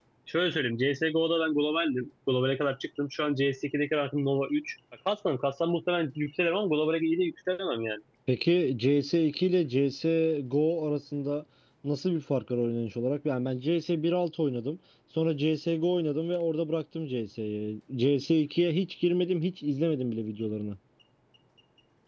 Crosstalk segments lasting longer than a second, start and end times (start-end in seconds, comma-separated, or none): none